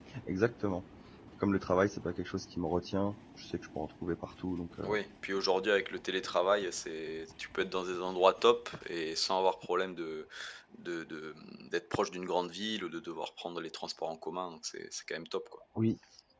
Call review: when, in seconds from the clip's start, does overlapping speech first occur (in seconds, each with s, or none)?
none